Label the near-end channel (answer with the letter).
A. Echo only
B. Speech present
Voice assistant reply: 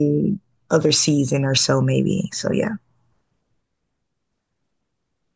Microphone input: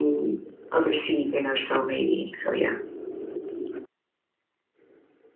A